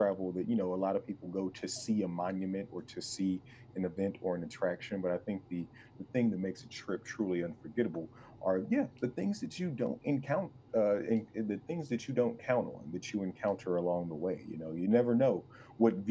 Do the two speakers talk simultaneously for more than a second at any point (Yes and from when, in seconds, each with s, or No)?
No